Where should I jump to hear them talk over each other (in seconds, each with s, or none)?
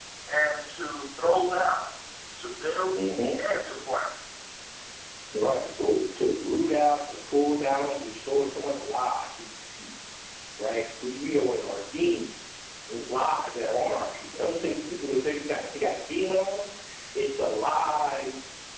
none